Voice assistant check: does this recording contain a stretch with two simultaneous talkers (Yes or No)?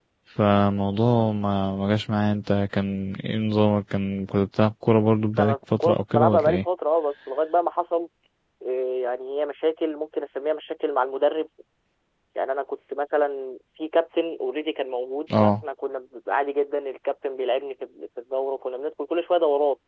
Yes